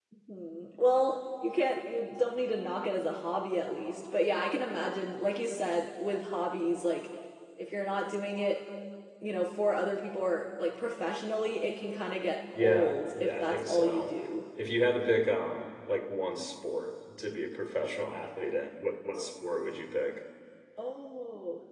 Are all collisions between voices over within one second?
No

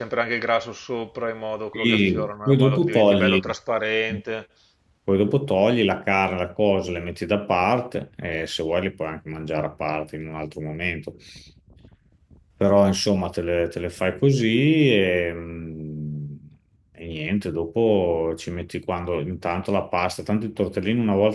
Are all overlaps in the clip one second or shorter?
No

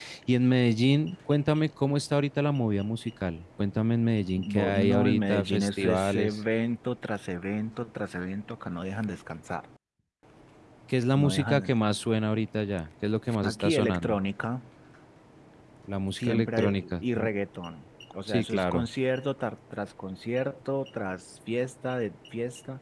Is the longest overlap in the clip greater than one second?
Yes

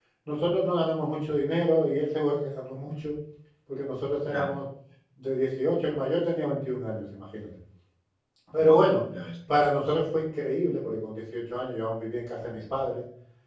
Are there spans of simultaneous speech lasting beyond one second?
No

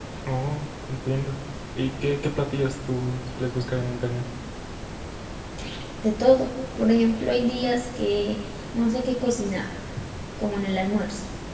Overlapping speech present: No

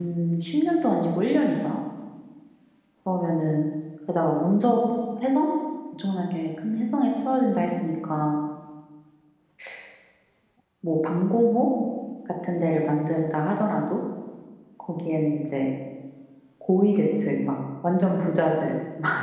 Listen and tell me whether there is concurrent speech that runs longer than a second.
No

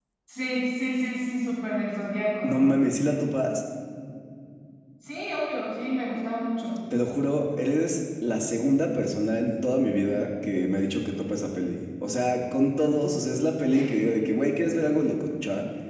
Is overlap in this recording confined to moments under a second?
Yes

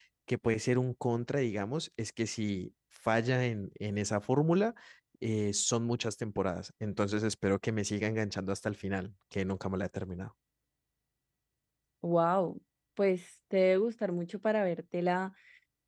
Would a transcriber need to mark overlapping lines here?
No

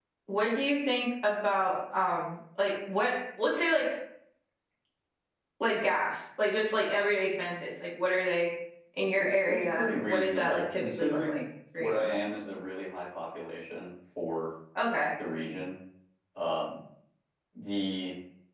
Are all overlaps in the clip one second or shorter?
No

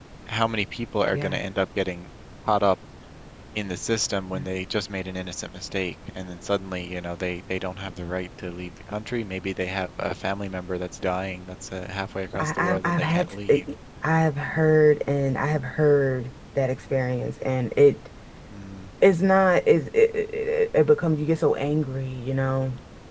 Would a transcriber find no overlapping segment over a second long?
No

